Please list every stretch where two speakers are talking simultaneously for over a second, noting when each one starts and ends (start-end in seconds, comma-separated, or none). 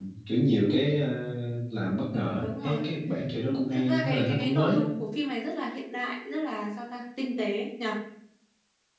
3.4-4.8